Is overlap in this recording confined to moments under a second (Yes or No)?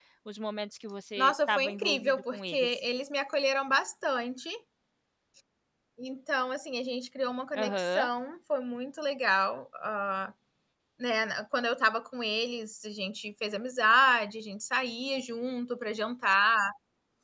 No